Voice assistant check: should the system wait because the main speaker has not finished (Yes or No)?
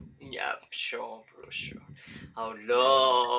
Yes